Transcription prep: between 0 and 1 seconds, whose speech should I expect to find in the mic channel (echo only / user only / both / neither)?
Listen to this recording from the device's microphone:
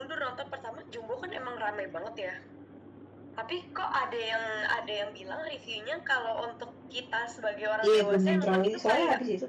echo only